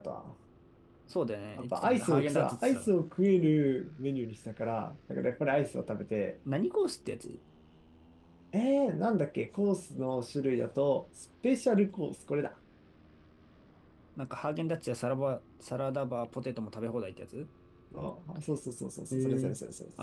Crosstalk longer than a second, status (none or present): present